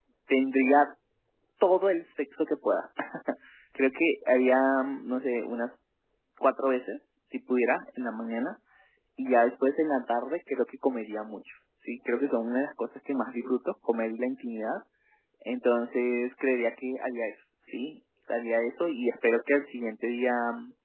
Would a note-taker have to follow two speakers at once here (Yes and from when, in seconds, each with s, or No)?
No